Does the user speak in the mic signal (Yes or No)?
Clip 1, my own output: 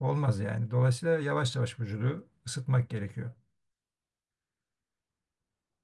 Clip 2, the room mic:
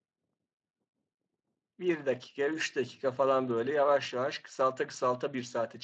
Yes